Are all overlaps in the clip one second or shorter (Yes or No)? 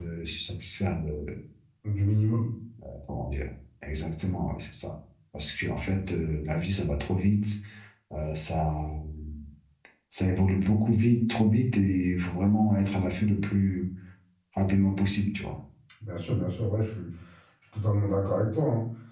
Yes